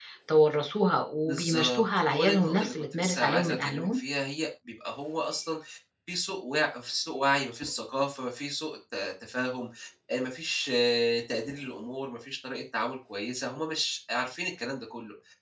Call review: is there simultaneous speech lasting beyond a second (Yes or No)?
Yes